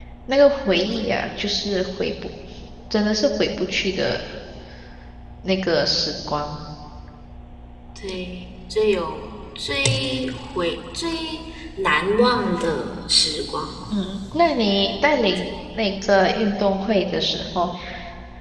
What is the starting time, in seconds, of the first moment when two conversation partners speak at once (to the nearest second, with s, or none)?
none